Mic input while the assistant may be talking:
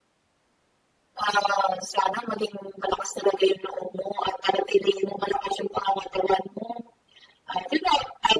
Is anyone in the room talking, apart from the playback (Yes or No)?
No